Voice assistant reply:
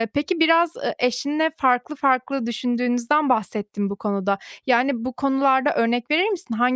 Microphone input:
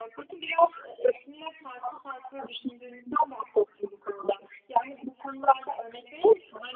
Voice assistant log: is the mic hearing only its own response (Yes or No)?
Yes